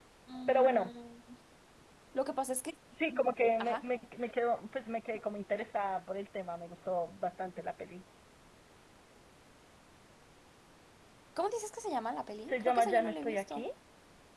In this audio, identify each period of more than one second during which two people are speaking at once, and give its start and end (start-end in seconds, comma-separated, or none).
12.4-13.6